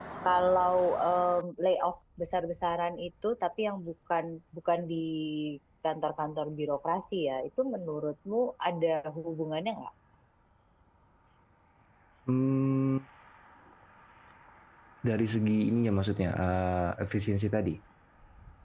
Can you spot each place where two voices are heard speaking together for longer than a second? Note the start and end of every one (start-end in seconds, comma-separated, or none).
none